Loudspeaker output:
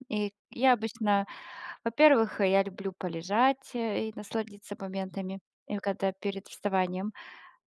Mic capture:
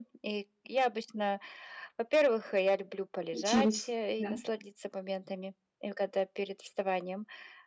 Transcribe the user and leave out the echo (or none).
Учились. Да.